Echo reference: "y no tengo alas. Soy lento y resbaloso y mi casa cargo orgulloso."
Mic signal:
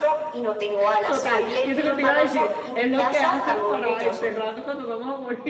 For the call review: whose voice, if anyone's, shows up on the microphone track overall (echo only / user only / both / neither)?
both